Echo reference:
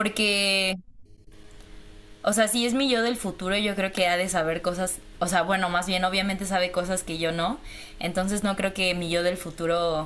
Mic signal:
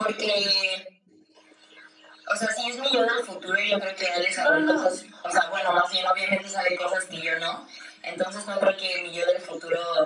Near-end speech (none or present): present